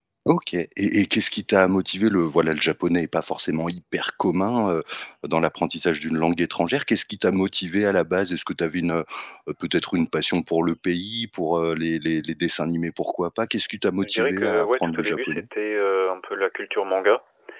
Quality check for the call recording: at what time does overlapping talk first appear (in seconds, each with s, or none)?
14.0 s